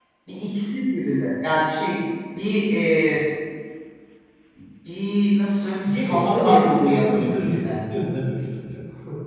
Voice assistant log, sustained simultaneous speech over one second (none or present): present